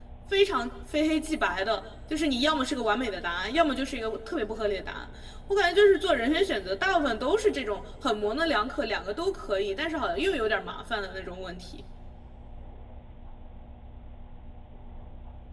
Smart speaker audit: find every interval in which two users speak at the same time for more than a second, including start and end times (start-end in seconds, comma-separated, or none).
none